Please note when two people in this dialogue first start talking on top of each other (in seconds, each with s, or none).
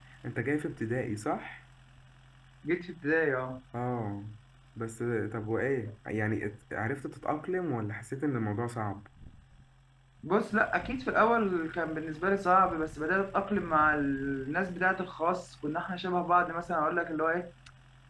none